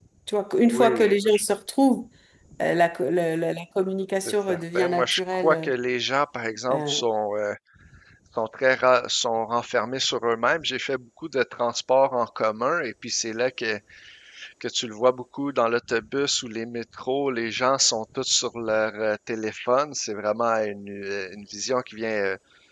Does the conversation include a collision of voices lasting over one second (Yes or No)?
Yes